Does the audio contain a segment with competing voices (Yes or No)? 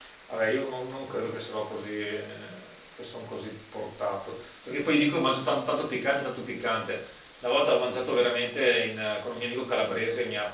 No